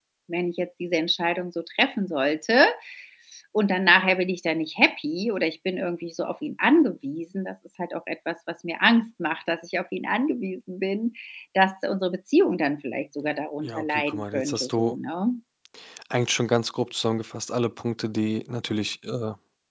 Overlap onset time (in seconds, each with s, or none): 13.6 s